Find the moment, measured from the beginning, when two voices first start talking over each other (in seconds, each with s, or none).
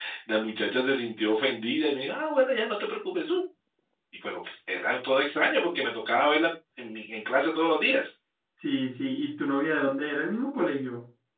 none